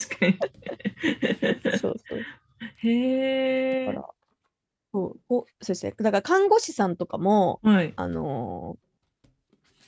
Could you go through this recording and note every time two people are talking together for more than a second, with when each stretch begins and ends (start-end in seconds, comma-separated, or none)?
none